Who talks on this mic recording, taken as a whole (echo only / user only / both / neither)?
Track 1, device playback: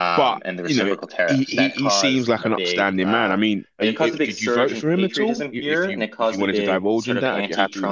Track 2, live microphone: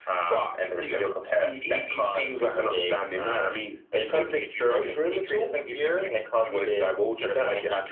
echo only